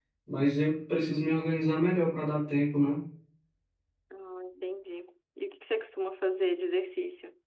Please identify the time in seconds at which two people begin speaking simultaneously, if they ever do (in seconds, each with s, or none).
none